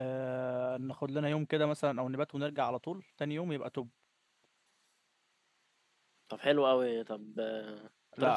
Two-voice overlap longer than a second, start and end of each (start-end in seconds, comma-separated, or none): none